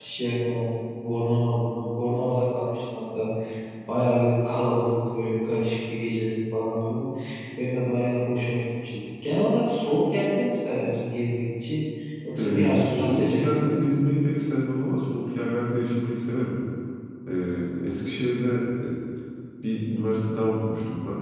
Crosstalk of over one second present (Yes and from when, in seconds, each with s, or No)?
Yes, from 12.4 s